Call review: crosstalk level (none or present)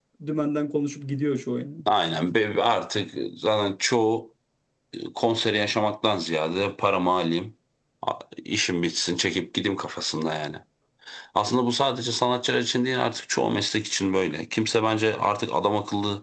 none